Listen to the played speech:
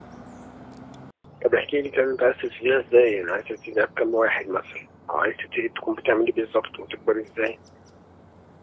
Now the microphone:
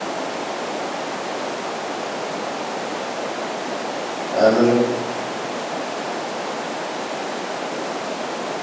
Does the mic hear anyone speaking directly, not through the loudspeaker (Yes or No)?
Yes